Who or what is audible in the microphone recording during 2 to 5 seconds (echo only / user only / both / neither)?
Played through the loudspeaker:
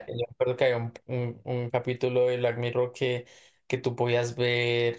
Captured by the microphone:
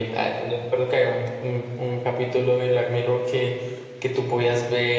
echo only